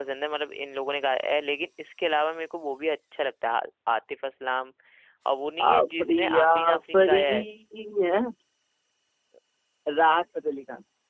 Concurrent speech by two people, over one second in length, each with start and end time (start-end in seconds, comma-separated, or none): 5.7-7.2